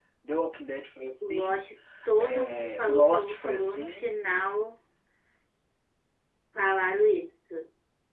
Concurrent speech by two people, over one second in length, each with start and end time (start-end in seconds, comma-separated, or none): 2.2-4.1